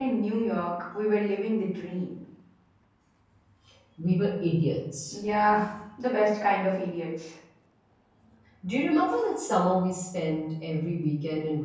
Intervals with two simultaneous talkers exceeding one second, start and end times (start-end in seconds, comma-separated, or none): none